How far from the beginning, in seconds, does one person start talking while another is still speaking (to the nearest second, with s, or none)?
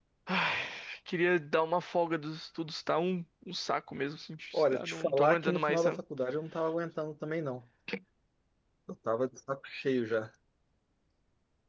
5 s